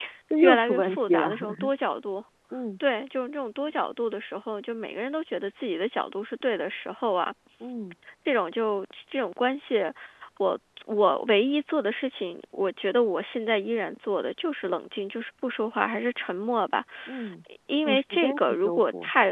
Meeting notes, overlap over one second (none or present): present